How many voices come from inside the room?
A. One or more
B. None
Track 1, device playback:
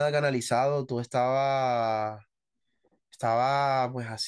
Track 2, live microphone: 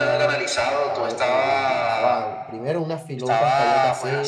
A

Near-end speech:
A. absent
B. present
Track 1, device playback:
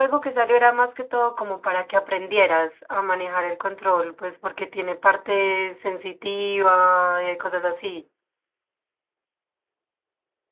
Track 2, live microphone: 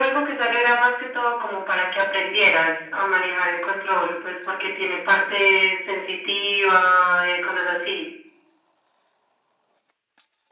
A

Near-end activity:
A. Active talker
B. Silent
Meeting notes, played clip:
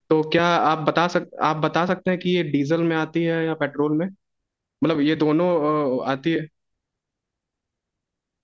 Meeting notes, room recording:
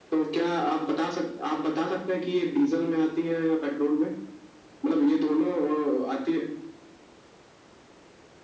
B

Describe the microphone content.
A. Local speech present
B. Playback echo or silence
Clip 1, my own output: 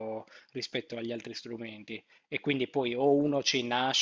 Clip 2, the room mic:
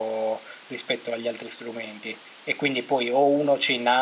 B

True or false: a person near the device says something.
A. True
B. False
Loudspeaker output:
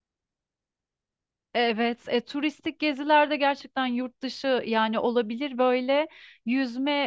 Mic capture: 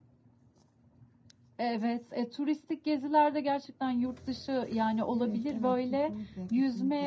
A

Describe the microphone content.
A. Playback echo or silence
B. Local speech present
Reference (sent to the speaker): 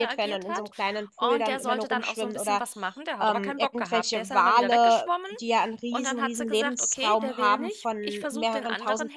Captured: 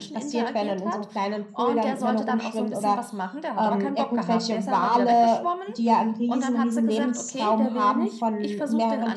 A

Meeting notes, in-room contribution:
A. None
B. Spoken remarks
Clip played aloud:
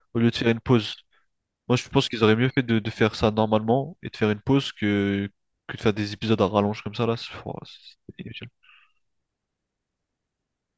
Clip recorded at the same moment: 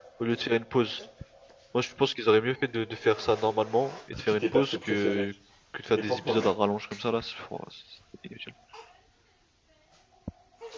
B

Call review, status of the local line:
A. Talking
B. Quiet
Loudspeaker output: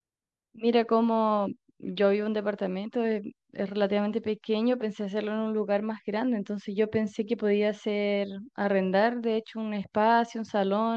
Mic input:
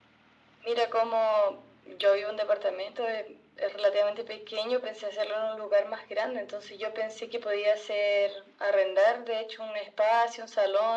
B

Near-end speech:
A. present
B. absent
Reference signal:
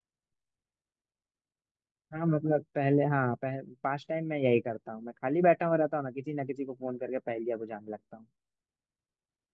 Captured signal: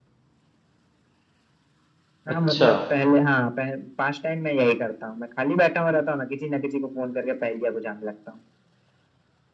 A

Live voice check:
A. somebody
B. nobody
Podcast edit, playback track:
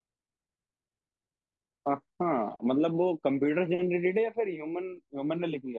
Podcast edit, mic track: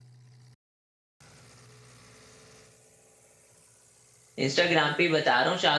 A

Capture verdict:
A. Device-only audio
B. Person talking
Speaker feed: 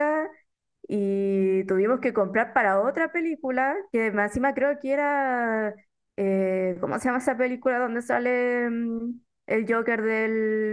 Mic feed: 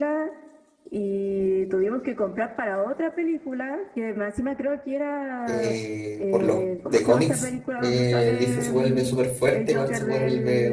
B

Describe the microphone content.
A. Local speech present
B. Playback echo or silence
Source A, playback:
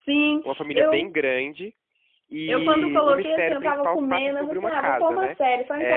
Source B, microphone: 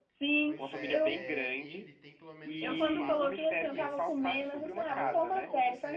A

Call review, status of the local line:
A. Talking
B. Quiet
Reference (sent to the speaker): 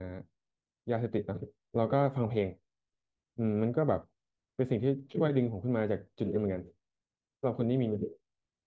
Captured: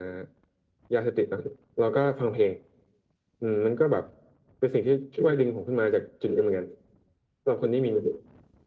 B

